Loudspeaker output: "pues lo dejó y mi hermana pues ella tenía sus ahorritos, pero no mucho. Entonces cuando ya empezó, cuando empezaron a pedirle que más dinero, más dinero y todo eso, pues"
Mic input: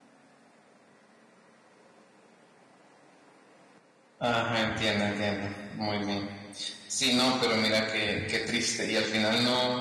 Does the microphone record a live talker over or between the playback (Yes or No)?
Yes